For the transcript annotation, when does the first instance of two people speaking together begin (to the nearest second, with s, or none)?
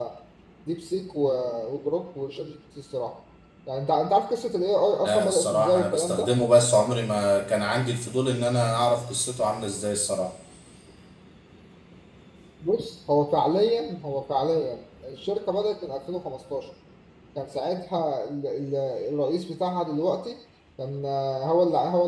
5 s